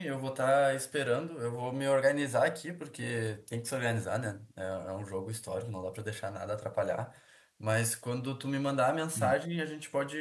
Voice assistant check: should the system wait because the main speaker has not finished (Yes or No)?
Yes